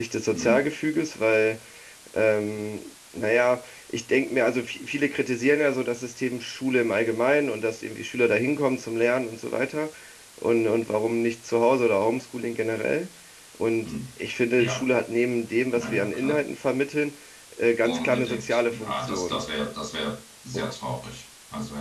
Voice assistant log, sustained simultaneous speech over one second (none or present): present